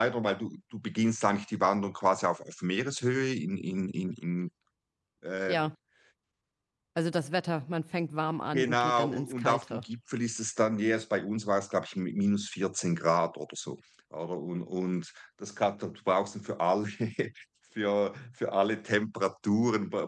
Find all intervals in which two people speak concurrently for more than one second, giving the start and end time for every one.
8.5-9.8

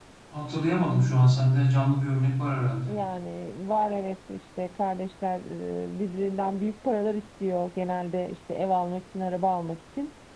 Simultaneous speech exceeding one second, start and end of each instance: none

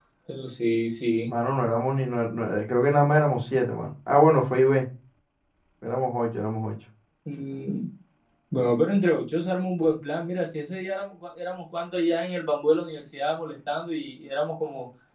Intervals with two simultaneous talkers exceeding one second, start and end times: none

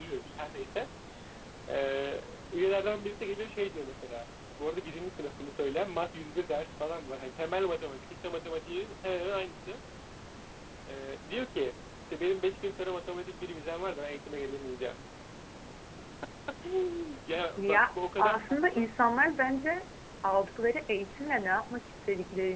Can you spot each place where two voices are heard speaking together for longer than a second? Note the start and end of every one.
17.6-18.9

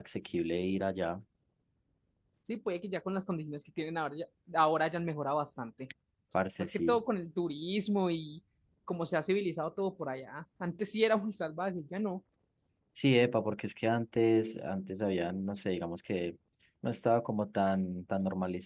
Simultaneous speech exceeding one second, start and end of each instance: none

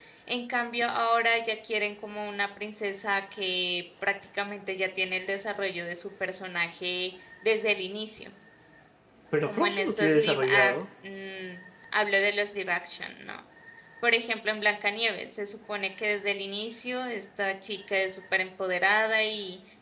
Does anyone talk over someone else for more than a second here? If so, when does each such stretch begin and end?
9.5-10.7

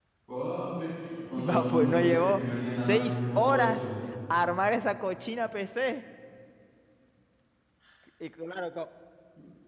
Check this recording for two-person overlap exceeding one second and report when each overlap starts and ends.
1.4-3.8

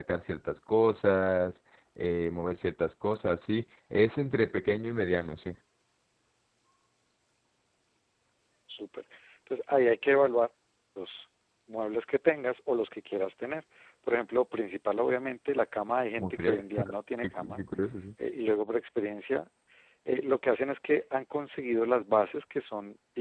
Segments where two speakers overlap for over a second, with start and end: none

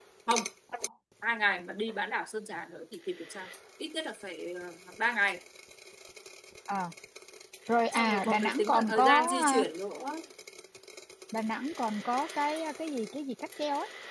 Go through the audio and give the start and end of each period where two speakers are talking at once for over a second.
7.9-9.6

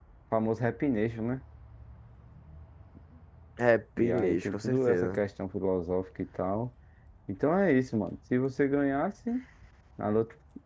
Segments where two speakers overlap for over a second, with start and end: 4.0-5.2

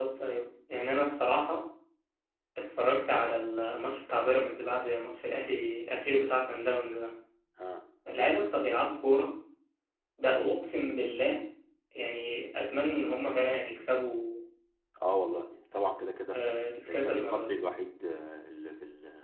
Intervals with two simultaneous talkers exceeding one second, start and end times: 16.3-17.6

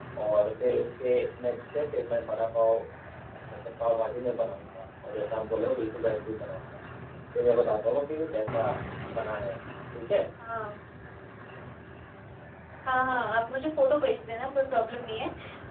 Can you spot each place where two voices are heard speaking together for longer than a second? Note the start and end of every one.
none

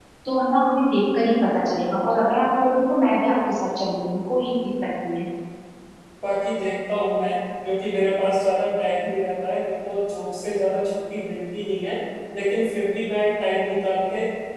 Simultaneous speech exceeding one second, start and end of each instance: none

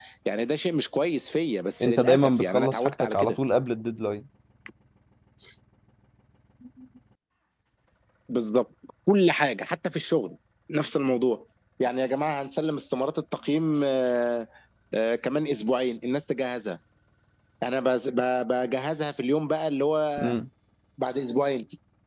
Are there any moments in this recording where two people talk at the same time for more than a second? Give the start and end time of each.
1.8-3.4

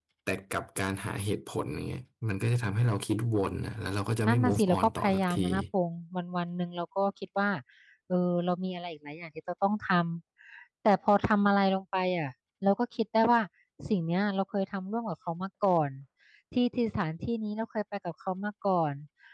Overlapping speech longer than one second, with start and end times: 4.2-5.5

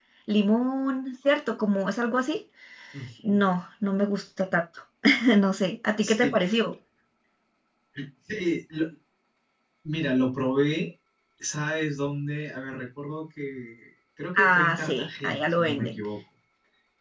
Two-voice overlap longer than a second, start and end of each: 14.4-16.0

